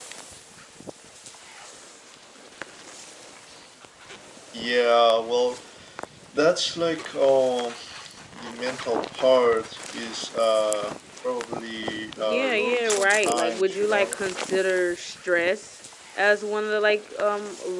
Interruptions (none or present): present